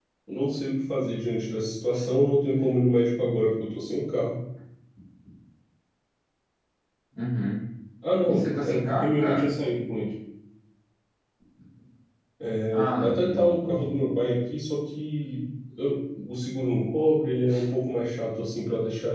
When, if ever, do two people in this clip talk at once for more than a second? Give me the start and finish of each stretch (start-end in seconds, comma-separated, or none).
8.2-9.5, 12.7-14.0